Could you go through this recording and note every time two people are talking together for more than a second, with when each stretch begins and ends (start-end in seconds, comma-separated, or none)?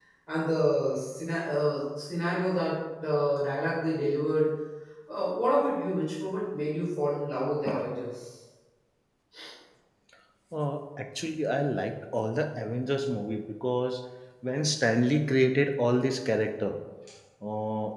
none